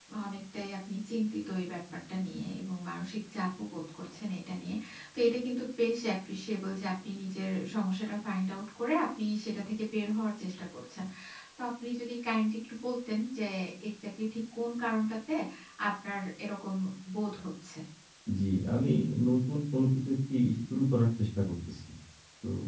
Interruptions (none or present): none